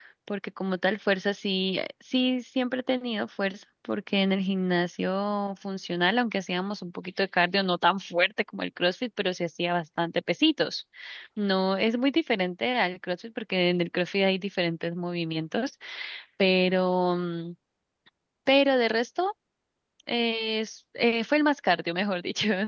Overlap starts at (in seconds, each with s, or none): none